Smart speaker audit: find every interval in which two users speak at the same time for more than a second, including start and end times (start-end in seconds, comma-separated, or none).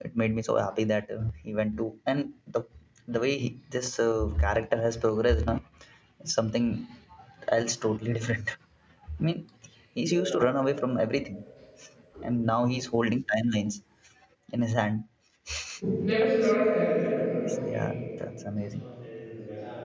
none